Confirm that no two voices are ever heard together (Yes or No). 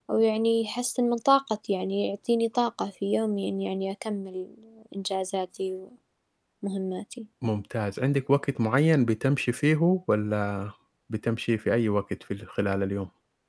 Yes